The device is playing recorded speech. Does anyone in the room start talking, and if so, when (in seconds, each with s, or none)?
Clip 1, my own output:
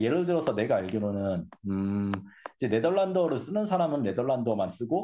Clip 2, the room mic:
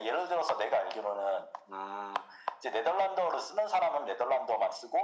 none